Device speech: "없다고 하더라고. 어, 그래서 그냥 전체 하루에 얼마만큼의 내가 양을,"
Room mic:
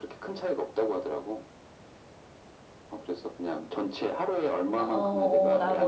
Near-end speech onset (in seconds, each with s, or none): 4.7 s